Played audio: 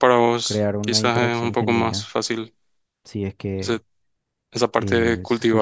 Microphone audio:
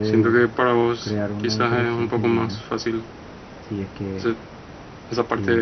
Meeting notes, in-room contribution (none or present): none